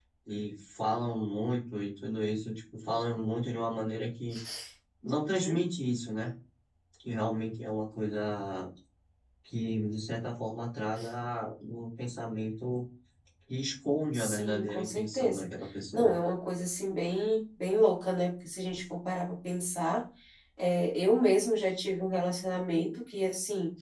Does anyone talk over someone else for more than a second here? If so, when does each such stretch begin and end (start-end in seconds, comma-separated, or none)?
14.1-15.5